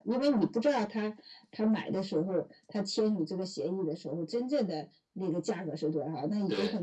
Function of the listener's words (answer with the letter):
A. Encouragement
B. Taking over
A